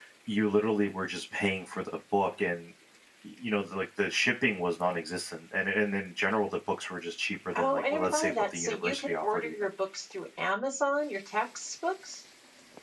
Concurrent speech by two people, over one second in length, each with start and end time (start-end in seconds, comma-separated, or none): 7.6-9.5